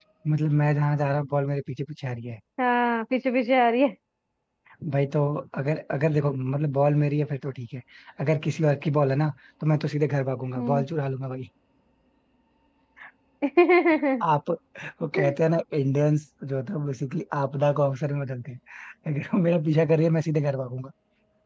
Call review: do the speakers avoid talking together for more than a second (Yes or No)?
Yes